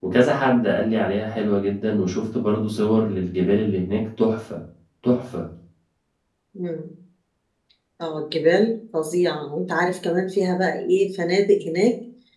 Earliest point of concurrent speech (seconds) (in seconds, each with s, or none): none